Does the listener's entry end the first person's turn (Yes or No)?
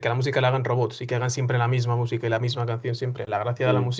No